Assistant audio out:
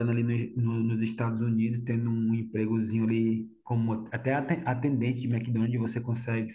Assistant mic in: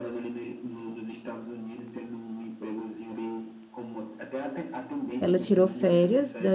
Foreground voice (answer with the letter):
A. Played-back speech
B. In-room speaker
B